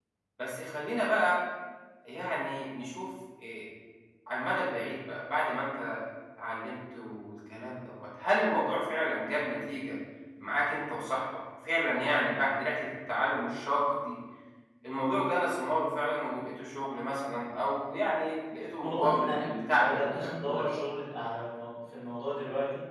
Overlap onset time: 19 s

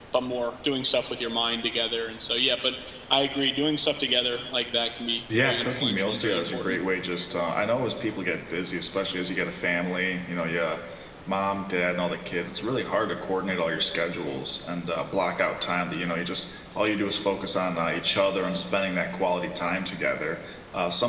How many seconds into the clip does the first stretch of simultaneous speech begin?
5 s

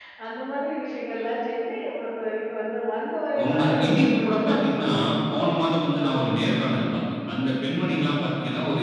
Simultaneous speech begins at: 3 s

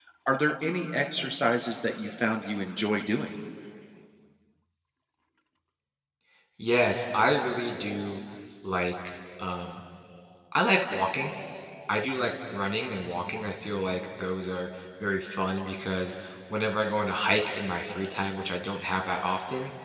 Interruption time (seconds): none

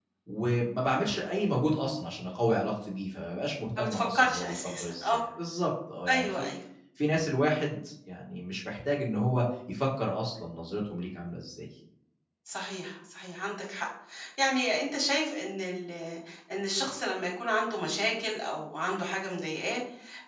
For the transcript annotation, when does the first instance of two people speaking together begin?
4 s

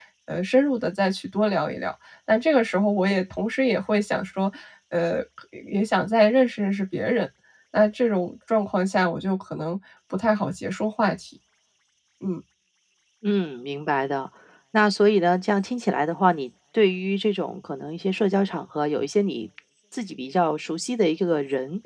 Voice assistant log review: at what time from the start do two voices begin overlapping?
none

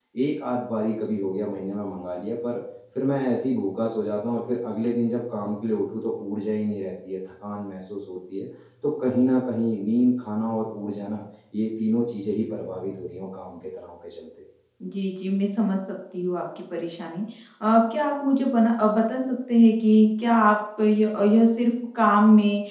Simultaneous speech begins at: none

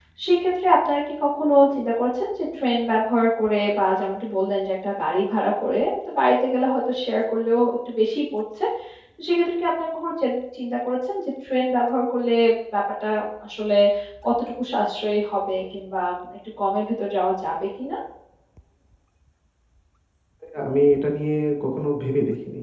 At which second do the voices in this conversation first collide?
none

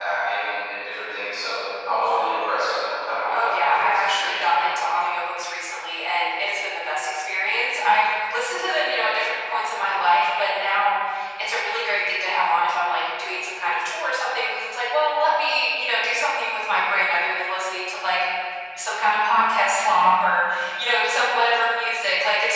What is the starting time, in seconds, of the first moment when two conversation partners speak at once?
3 s

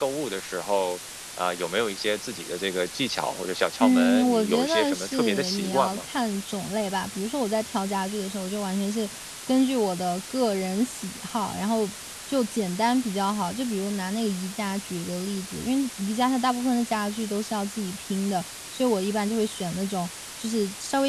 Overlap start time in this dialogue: 4 s

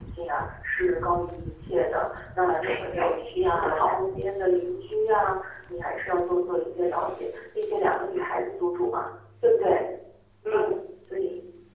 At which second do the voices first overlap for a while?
3 s

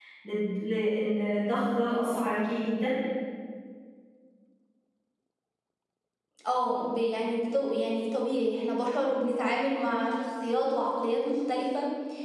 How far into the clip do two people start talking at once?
none

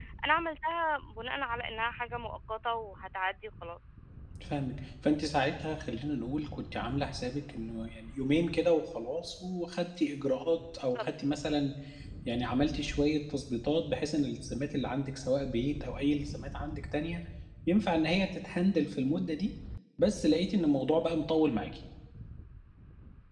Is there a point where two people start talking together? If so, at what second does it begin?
none

